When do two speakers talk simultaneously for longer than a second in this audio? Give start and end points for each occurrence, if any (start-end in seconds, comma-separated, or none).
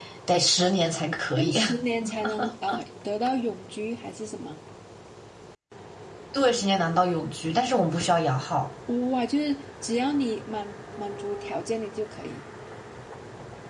none